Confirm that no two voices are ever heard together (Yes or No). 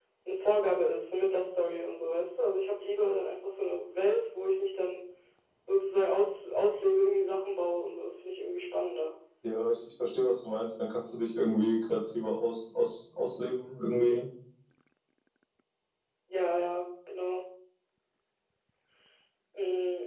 Yes